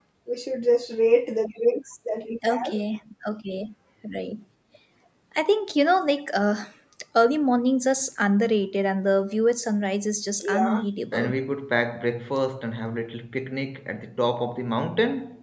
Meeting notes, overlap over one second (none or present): none